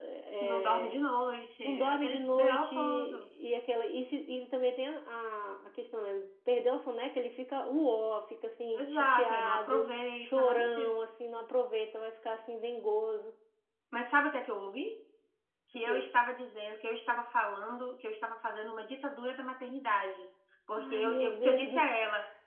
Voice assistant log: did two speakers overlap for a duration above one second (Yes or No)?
Yes